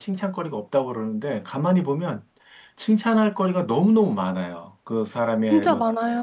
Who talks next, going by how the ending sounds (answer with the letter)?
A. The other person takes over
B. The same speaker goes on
B